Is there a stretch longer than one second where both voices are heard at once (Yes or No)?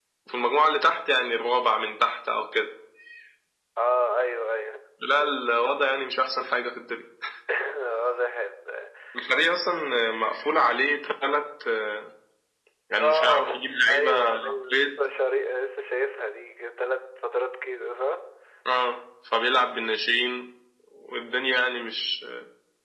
Yes